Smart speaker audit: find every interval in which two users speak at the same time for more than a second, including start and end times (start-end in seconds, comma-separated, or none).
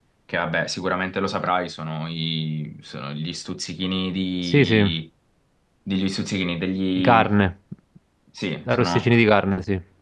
none